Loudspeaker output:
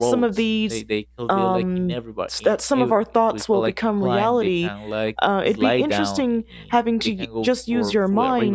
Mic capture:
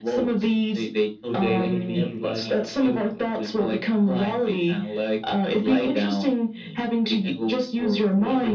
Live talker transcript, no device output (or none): today will be like